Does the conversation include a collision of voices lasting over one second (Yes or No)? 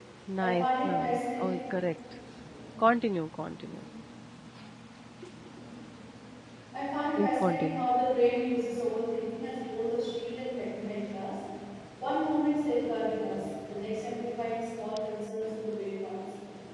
Yes